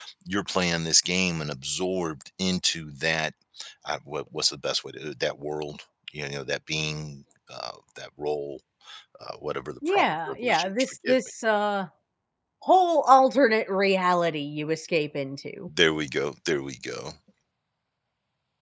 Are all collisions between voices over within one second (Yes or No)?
No